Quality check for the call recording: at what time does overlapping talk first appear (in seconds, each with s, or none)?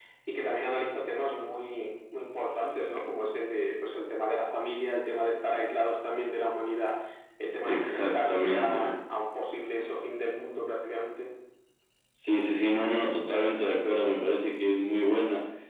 7.6 s